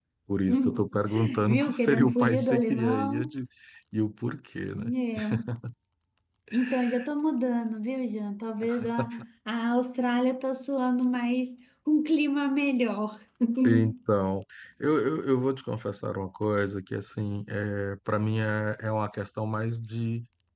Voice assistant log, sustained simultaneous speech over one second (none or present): present